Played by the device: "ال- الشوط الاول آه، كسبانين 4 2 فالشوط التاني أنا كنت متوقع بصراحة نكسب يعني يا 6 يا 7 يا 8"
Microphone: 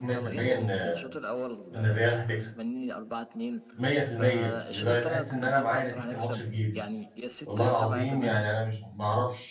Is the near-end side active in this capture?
Yes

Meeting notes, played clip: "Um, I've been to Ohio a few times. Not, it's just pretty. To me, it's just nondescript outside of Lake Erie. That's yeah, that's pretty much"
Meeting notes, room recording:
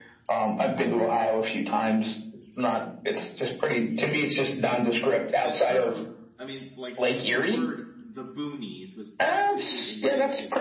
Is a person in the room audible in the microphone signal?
Yes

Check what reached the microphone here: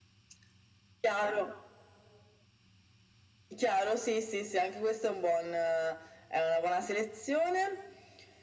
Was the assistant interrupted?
No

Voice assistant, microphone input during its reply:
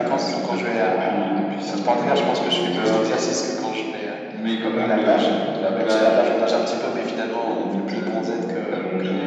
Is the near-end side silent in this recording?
Yes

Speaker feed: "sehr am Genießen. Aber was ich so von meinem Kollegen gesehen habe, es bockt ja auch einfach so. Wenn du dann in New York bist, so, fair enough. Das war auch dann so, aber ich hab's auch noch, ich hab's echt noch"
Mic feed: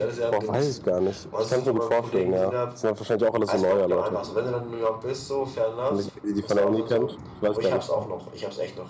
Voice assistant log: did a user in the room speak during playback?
Yes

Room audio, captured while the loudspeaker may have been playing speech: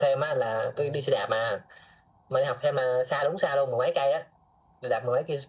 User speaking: Yes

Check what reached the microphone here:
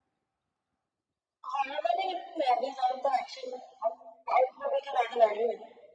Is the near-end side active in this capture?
No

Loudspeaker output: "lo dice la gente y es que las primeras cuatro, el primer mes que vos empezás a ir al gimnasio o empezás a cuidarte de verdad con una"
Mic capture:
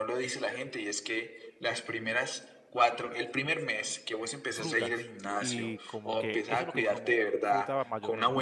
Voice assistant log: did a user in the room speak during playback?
Yes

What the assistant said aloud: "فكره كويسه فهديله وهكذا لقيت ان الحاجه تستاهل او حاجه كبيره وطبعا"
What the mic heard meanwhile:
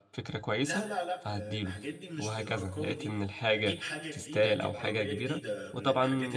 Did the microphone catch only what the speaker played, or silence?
No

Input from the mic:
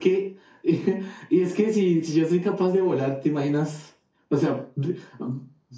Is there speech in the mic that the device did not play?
No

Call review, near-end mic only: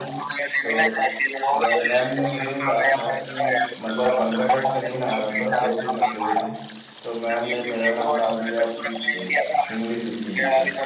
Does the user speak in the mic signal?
Yes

